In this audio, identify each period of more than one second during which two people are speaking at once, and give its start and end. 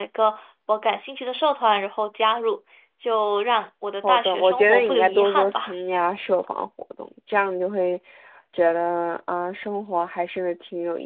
4.0-5.7

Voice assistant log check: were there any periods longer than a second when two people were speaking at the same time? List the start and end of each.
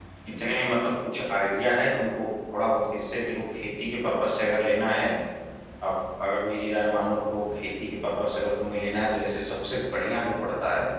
none

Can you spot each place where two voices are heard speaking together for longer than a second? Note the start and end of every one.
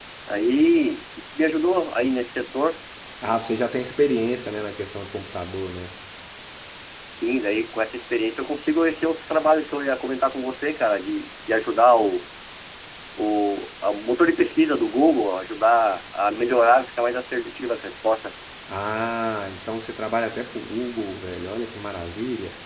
none

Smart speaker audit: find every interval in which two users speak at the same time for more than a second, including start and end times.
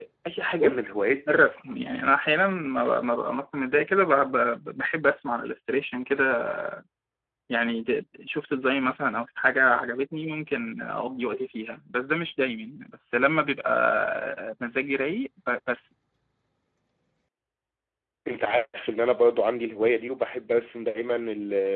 none

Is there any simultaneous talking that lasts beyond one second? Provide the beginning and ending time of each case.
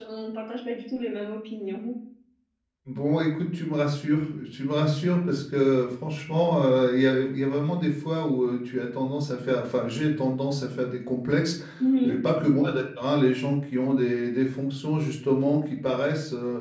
none

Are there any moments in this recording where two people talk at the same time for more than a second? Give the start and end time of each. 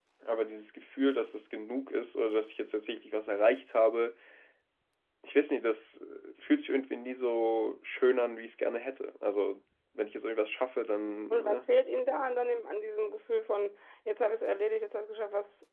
none

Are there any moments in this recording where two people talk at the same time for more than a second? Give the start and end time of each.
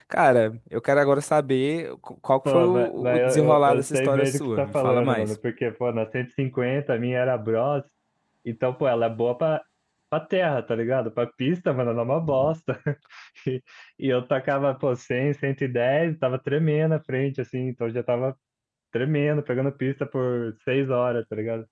2.4-5.3

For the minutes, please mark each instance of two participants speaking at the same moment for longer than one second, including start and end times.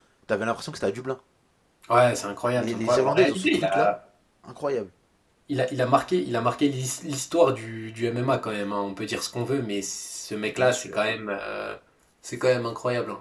2.6-3.9

